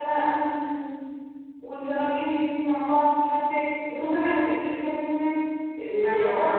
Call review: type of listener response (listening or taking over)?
taking over